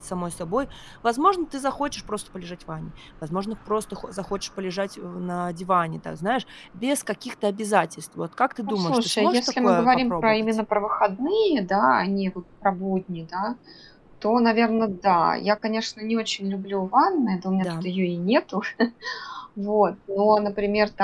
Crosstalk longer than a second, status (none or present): present